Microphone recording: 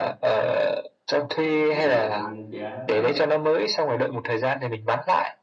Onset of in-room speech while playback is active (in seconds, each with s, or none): 1.4 s